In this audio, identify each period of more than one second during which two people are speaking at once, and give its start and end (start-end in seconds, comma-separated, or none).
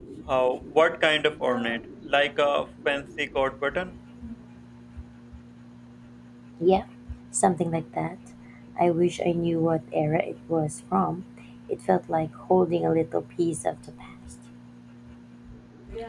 none